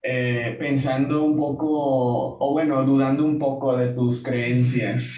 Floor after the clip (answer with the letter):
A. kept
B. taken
B